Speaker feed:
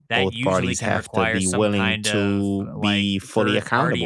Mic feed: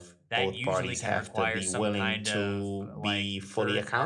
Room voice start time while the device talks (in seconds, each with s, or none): none